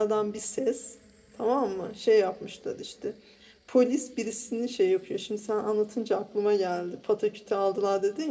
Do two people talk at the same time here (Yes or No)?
No